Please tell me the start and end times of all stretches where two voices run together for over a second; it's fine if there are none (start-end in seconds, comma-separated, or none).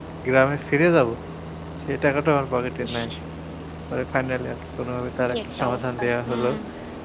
5.2-6.5